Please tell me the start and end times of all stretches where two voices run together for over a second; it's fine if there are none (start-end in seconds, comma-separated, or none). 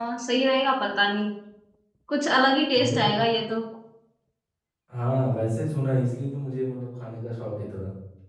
none